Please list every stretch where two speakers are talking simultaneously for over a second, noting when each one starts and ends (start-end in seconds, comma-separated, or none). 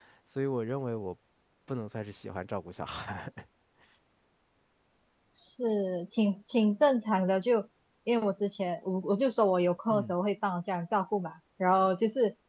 none